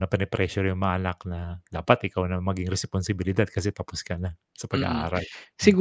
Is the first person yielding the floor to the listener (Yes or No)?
Yes